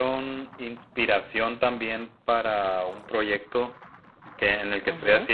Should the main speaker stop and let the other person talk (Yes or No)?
No